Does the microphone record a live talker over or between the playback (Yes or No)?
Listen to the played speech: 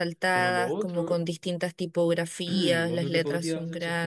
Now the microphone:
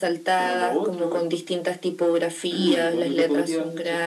No